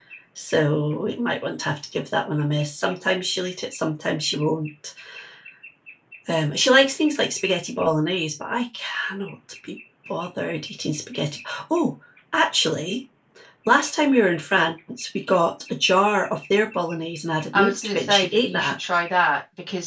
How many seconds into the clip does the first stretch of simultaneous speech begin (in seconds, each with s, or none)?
17.5 s